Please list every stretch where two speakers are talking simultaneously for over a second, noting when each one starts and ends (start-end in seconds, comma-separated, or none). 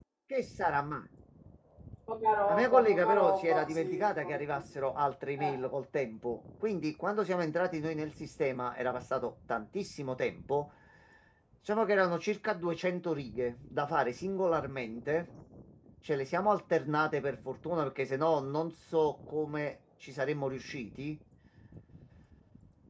2.5-4.4